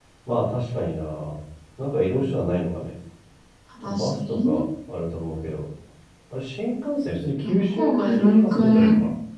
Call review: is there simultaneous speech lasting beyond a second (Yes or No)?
Yes